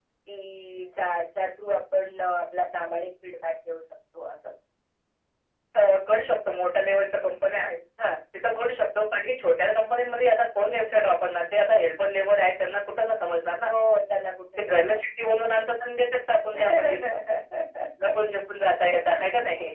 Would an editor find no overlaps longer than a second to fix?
Yes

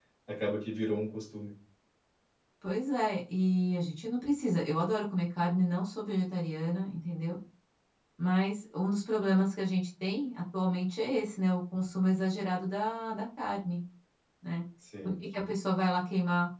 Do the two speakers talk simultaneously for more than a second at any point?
No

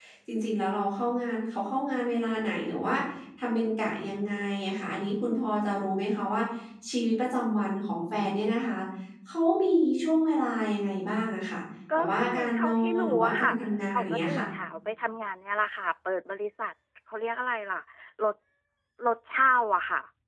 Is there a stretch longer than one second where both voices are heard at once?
Yes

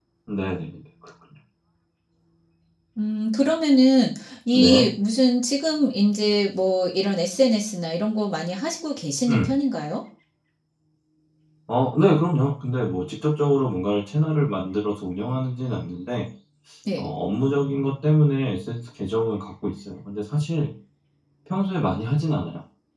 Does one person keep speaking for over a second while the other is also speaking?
No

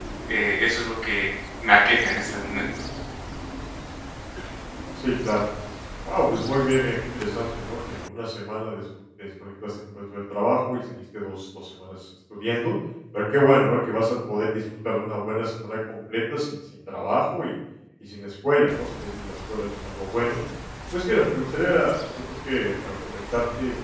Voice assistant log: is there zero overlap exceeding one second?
Yes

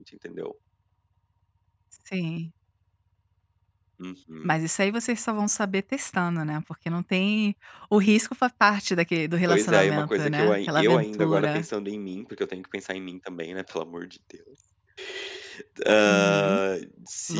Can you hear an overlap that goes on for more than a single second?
Yes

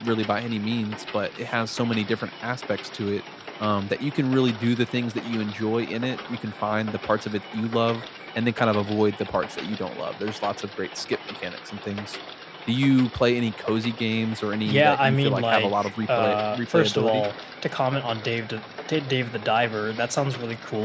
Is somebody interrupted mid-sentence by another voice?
Yes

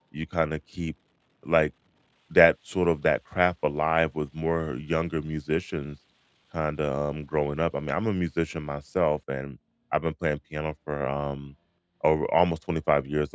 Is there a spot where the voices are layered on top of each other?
No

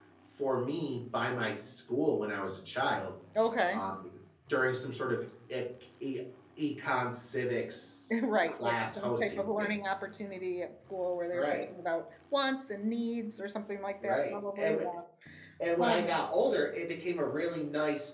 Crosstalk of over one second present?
Yes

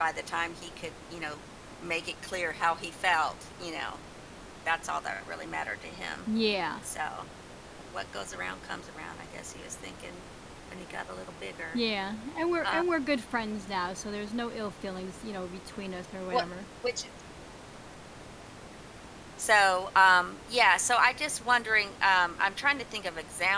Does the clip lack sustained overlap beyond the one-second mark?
Yes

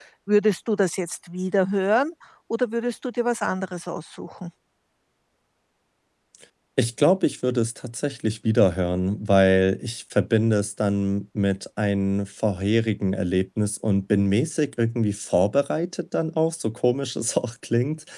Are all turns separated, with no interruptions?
Yes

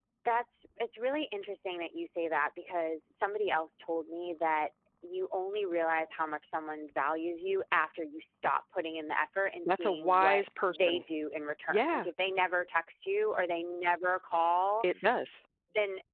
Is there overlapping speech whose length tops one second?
Yes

